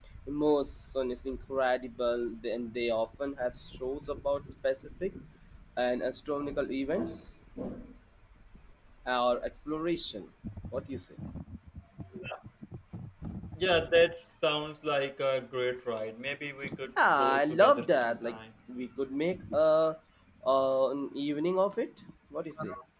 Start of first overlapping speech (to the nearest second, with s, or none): 17 s